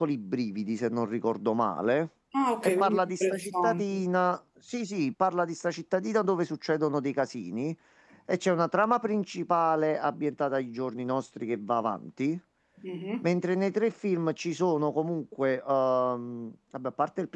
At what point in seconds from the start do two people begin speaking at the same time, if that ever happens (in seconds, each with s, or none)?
2.6 s